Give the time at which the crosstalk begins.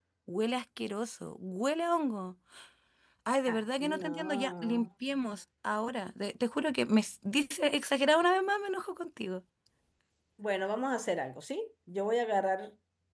3.5 s

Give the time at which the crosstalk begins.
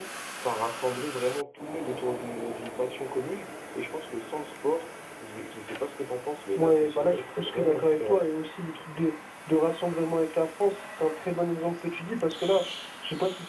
6.6 s

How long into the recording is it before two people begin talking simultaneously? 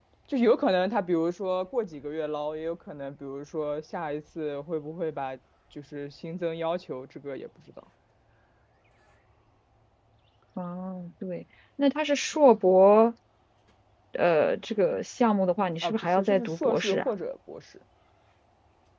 15.8 s

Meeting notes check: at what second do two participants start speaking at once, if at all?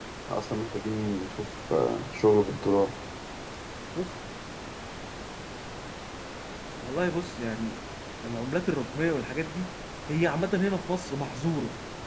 none

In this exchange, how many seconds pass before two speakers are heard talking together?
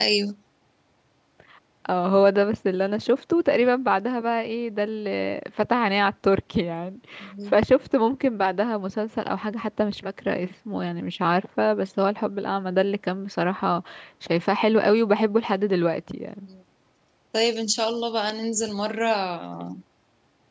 none

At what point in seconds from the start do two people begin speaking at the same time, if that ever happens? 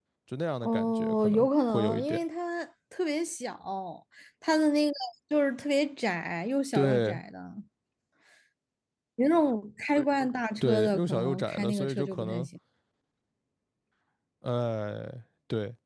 0.6 s

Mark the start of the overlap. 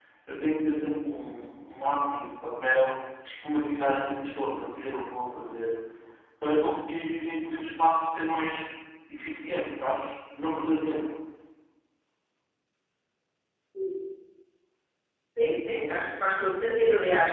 none

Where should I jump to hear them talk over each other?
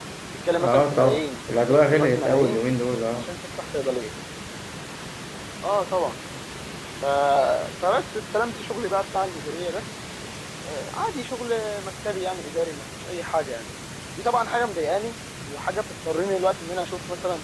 0.6 s

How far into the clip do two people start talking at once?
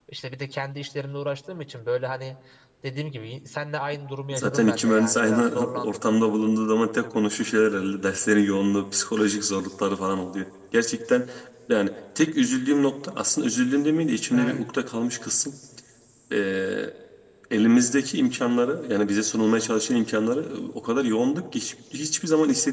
4.3 s

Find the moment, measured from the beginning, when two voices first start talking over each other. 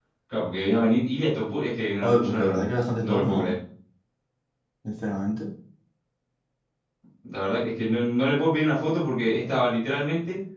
2.0 s

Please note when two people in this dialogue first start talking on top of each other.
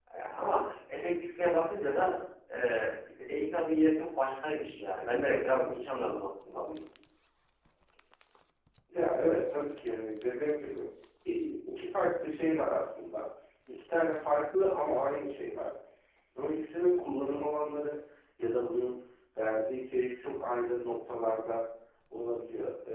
none

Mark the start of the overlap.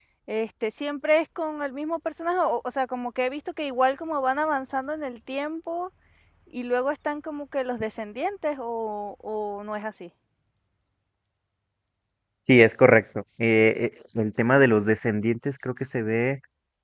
none

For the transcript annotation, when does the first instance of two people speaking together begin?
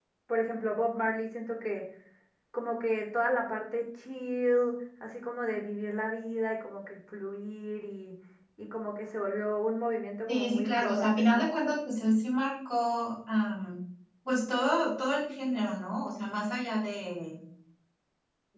10.3 s

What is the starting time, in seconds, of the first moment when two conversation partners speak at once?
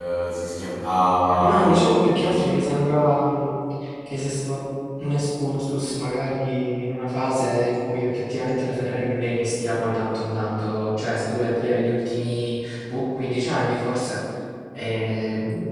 1.3 s

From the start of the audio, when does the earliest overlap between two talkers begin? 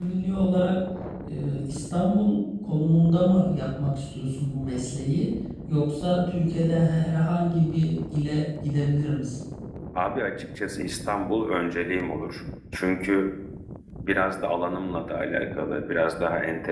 none

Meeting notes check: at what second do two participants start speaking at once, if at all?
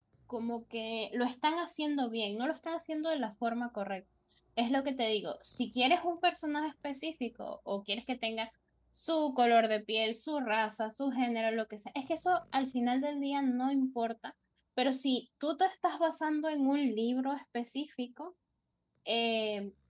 none

